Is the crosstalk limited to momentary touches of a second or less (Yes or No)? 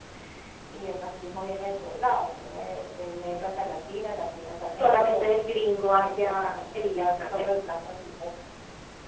No